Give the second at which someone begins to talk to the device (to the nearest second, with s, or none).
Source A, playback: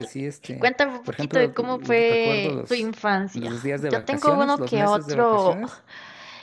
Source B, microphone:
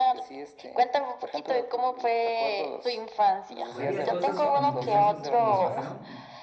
4 s